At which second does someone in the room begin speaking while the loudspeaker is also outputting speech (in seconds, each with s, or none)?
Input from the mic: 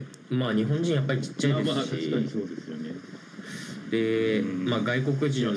none